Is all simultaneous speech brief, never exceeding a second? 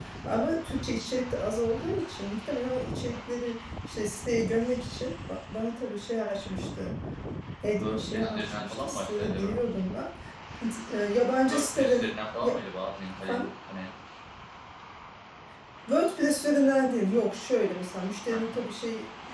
No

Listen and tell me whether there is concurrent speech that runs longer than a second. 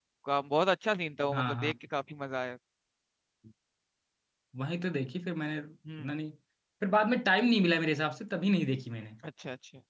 No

